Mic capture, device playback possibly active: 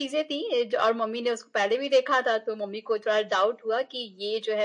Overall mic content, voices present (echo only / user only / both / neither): echo only